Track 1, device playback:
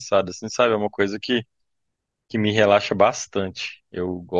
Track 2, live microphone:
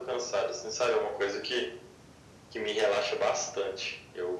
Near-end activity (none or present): none